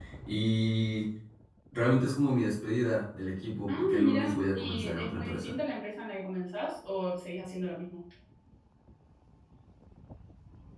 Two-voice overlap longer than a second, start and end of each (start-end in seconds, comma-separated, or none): 3.7-5.5